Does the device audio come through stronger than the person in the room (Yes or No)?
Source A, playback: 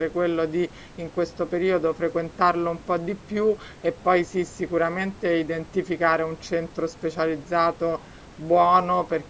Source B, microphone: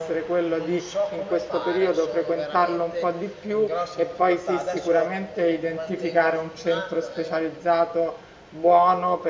Yes